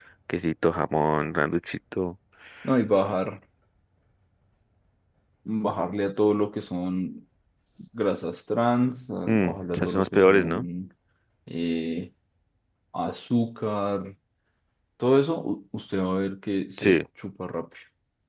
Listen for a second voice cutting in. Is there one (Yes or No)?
Yes